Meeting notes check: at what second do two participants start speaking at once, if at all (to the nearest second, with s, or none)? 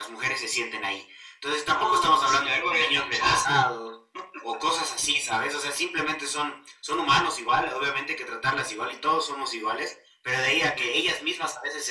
2 s